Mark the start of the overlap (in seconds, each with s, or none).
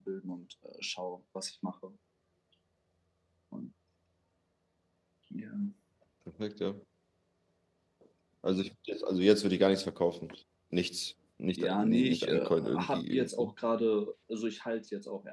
11.6 s